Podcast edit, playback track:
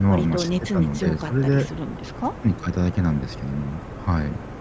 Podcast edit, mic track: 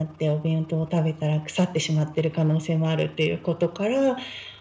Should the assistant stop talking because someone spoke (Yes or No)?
Yes